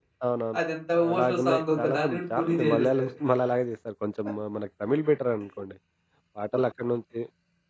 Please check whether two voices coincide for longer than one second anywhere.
Yes, from 1.1 s

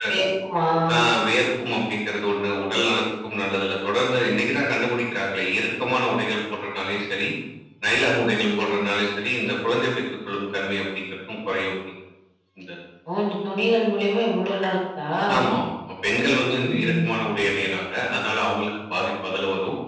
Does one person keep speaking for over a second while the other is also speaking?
No

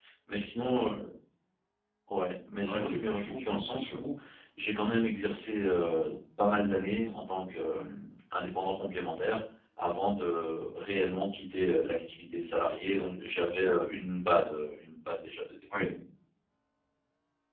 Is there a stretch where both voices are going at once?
Yes, from 2.6 s

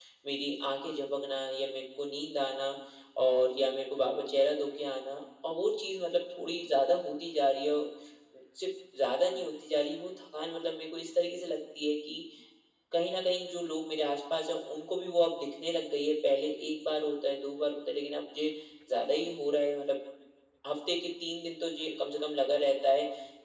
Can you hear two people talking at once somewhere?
No

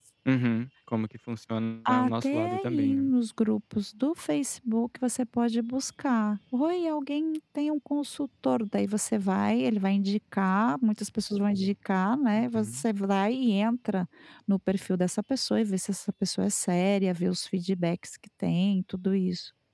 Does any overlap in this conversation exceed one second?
Yes, from 1.9 s

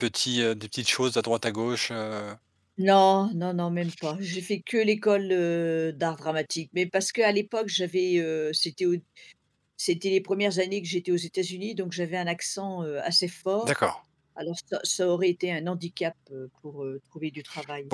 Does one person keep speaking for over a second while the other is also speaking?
No

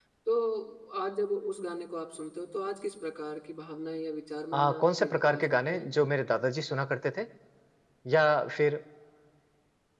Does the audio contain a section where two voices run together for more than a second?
Yes, from 4.5 s

